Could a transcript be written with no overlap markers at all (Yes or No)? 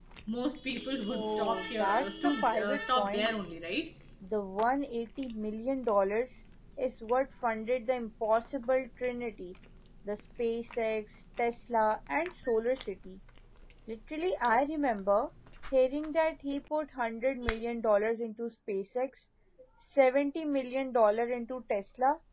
No